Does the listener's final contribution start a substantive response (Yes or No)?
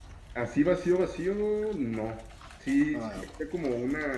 No